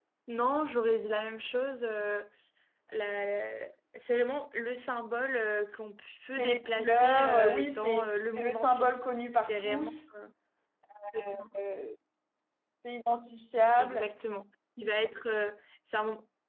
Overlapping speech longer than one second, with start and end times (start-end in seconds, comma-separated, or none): 6.3-8.9